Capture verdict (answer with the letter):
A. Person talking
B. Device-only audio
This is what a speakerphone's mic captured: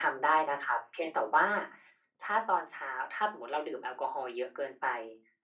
B